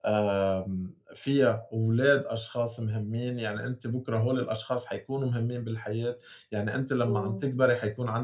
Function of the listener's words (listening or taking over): listening